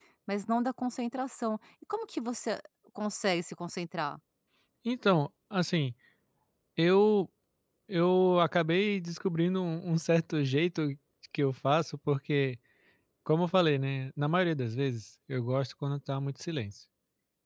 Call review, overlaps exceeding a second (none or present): none